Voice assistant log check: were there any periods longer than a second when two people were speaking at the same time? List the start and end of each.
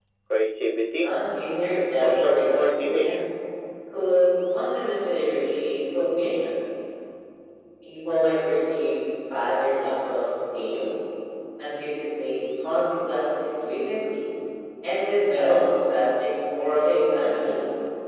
1.7-3.3

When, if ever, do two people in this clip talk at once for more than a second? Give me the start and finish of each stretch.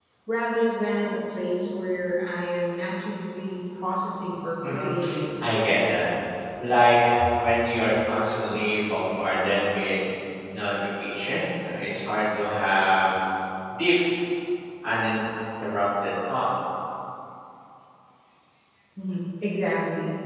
none

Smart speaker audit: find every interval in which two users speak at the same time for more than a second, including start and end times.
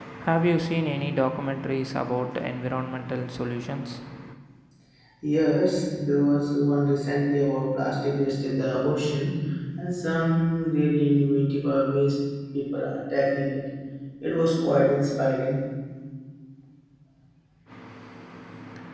none

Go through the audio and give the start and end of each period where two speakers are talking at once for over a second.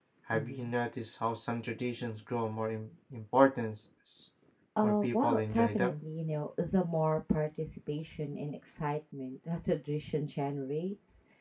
4.8-6.0

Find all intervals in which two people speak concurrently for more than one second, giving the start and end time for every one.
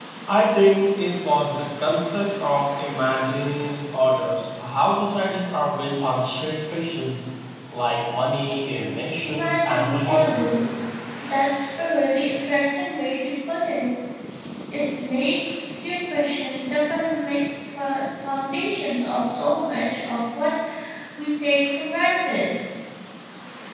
9.2-10.6

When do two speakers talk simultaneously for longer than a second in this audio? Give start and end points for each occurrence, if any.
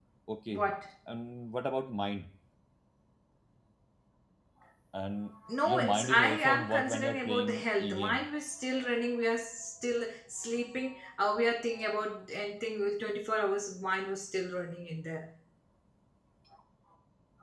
5.7-8.2

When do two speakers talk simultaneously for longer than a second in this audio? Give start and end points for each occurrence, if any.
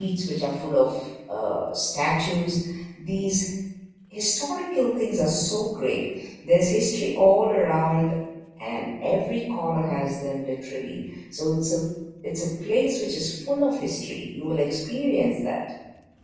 none

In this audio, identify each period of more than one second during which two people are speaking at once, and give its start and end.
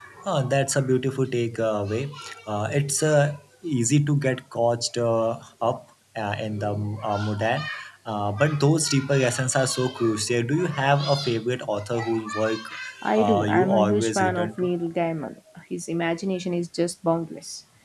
13.2-14.7

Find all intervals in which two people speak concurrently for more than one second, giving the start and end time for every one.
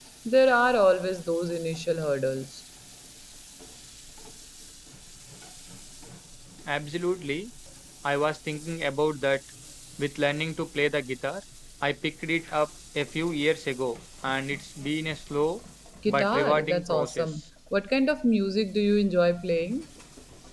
16.1-17.3

